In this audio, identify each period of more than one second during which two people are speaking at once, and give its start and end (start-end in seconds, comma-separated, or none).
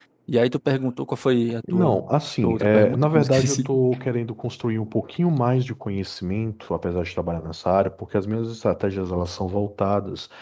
2.4-3.7